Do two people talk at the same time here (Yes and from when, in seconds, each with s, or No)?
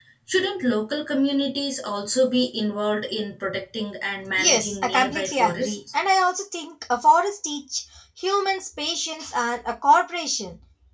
Yes, from 4.4 s